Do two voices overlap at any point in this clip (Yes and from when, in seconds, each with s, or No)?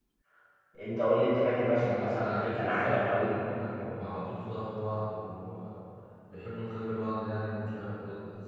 Yes, from 1.8 s